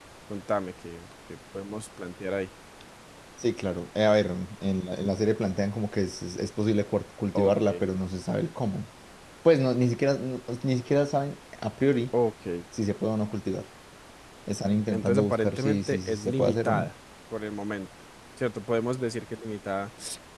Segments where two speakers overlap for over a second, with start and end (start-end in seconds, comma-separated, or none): 14.9-16.9